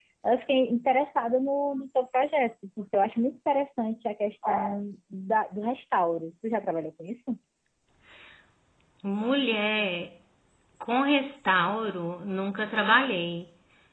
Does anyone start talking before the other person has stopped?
No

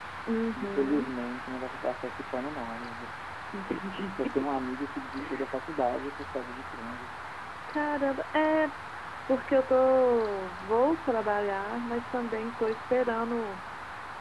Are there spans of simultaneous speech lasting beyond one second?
No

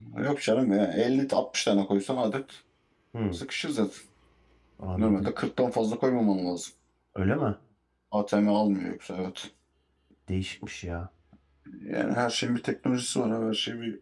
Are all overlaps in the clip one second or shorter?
Yes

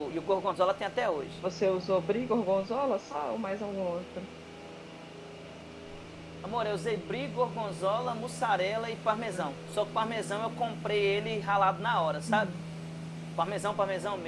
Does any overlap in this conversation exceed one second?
No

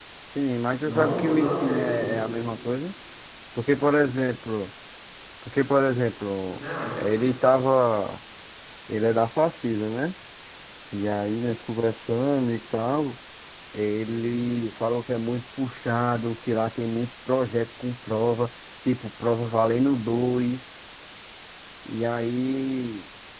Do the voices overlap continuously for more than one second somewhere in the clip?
Yes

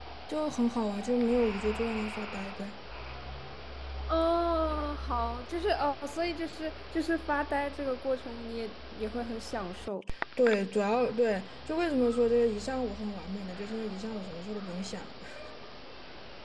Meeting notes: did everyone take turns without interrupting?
Yes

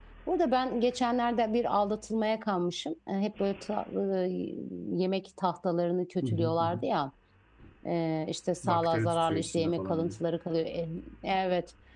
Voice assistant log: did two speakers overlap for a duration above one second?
Yes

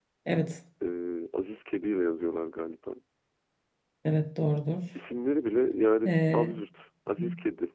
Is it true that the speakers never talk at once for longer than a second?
Yes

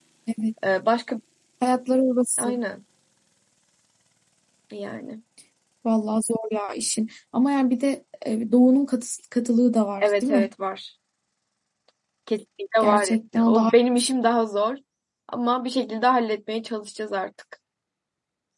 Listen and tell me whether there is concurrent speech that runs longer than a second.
Yes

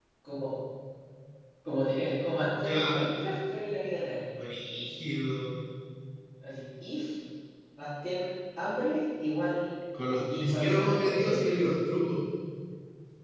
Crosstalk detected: Yes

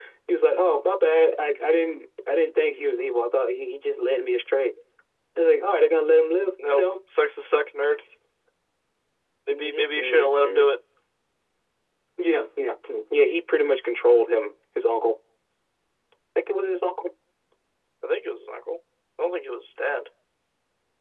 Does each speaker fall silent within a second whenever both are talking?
No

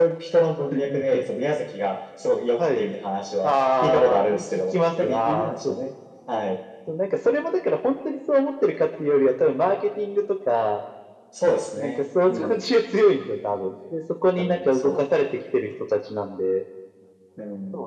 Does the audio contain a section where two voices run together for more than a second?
Yes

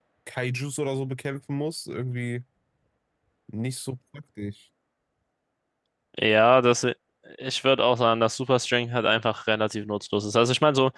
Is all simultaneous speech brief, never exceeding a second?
Yes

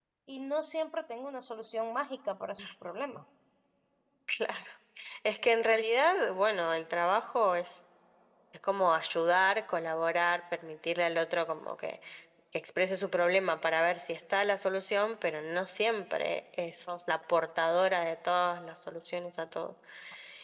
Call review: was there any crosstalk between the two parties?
No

